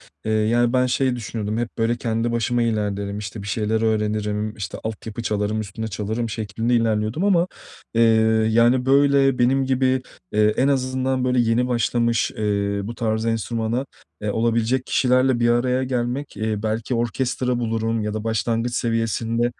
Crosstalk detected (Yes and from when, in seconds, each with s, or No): No